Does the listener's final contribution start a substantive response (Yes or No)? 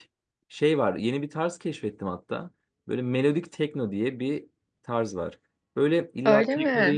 No